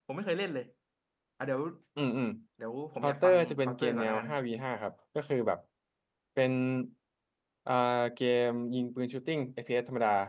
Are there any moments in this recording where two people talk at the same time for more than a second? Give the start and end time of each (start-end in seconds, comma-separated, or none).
3.0-4.3